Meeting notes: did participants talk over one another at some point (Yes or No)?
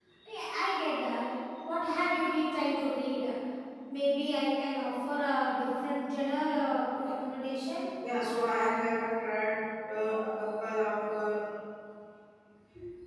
No